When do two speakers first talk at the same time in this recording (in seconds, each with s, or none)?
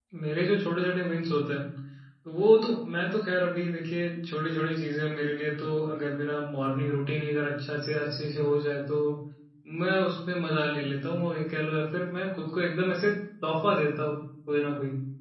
none